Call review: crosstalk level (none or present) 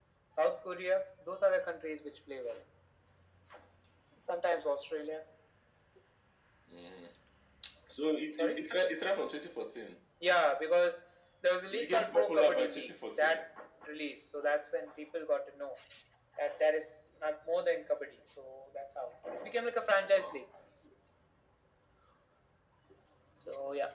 present